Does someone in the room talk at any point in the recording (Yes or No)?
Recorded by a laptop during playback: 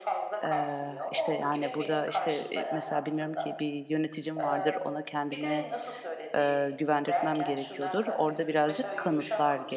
Yes